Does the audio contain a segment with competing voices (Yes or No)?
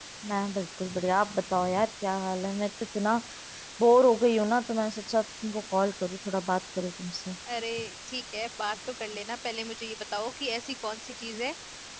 No